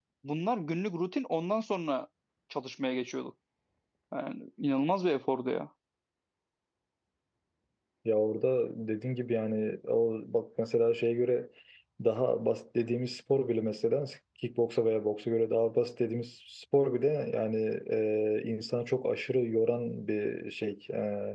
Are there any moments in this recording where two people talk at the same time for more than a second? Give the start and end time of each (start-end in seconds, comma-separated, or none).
none